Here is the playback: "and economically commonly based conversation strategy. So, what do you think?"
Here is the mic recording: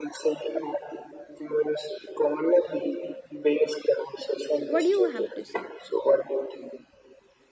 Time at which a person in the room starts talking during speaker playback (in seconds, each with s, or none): 4.7 s